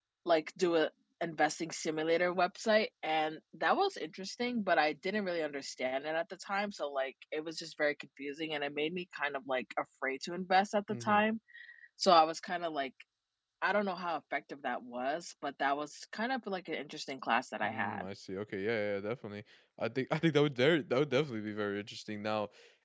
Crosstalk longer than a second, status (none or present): none